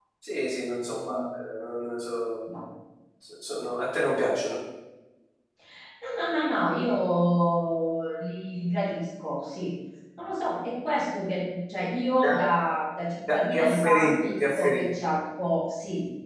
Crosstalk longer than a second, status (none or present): present